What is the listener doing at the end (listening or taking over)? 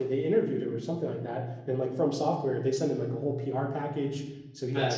listening